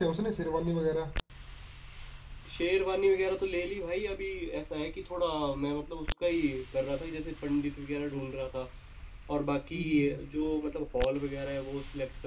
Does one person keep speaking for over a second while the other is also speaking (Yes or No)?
No